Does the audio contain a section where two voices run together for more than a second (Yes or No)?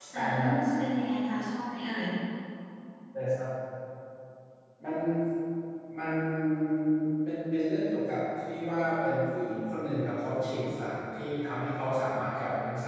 No